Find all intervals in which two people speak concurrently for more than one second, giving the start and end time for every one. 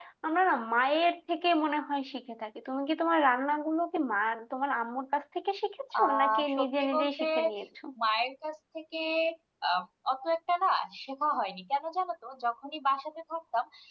6.0-7.2

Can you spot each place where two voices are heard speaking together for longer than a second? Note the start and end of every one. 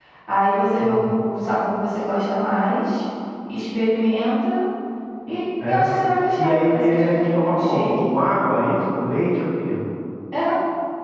6.4-8.1

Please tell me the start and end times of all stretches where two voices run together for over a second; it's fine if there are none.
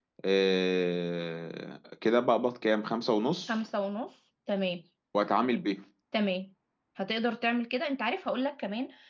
none

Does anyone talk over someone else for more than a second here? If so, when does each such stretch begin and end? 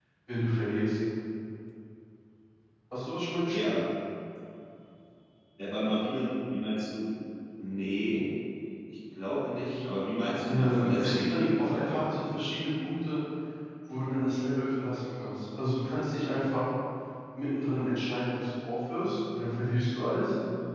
10.5-12.0

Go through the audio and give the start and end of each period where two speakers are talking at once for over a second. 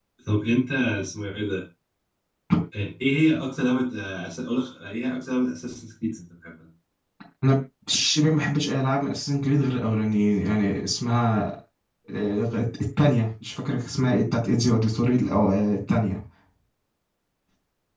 none

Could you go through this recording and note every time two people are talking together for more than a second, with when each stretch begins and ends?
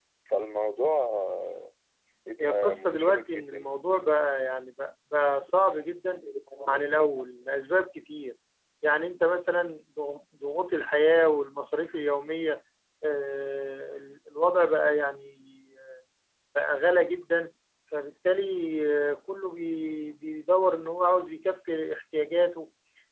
2.4-3.7

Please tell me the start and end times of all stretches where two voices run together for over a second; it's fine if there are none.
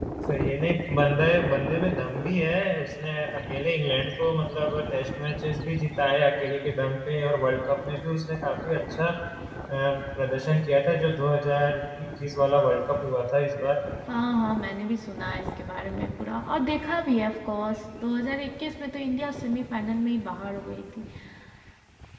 none

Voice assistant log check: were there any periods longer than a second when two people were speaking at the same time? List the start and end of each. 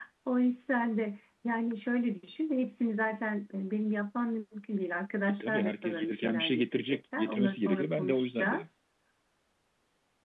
5.4-8.7

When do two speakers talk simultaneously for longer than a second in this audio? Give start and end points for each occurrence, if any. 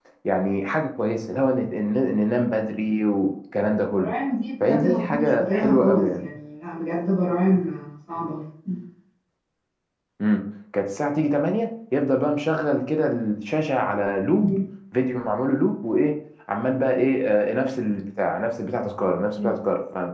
4.6-6.2

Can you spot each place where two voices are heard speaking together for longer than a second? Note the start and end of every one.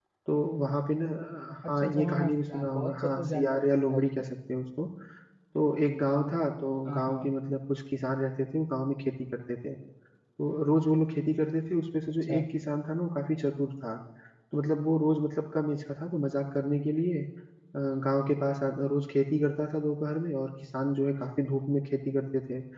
1.8-4.2

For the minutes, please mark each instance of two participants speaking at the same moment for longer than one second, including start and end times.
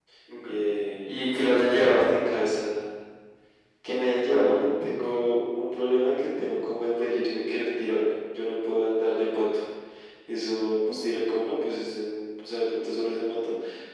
none

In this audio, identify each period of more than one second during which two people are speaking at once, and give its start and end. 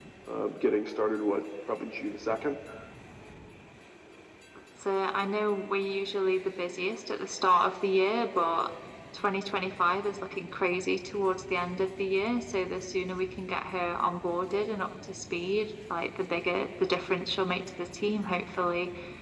none

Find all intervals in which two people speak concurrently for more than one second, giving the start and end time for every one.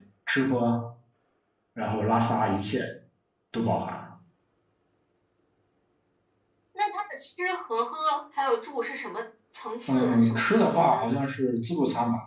9.9-11.2

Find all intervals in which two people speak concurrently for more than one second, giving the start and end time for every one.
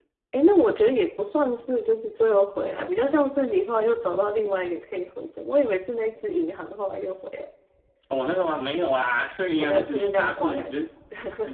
9.6-10.8

